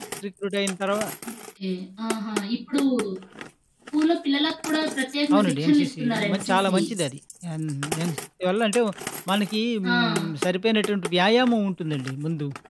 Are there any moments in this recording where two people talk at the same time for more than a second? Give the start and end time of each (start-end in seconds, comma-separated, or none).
5.3-6.8